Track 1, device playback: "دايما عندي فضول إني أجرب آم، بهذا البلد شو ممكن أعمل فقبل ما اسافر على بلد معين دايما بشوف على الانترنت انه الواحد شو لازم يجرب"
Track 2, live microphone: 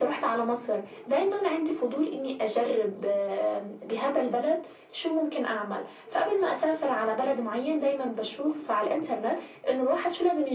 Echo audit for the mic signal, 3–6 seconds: echo only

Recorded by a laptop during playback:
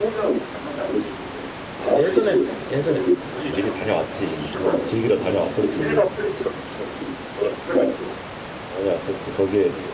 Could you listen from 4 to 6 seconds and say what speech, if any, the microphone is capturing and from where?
both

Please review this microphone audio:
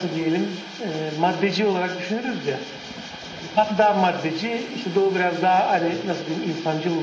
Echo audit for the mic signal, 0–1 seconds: echo only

